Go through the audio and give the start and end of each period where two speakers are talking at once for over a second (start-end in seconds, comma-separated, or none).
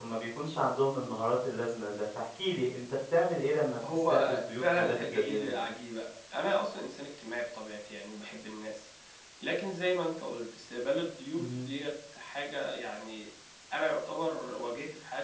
3.9-5.5